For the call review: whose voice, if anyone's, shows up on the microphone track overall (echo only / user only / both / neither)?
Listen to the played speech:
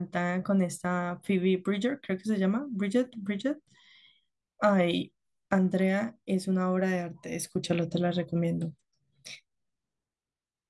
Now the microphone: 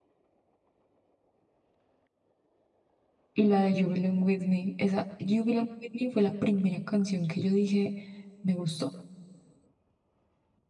user only